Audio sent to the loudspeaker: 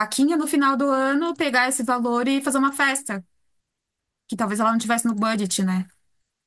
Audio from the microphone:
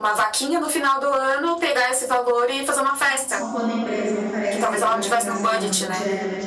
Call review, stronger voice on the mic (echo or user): echo